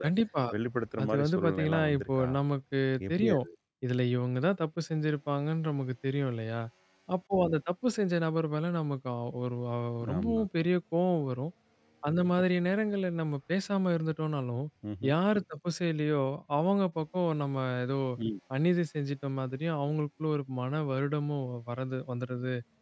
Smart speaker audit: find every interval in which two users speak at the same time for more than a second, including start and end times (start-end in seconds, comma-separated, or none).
1.0-2.3